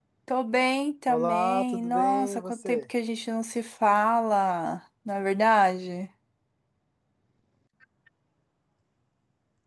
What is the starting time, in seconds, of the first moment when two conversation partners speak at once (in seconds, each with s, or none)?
1.1 s